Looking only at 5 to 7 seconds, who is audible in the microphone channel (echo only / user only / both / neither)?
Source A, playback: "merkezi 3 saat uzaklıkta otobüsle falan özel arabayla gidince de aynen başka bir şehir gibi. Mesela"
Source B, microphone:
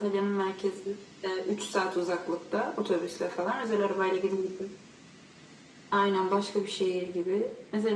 echo only